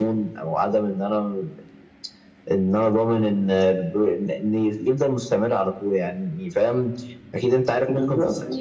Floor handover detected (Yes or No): No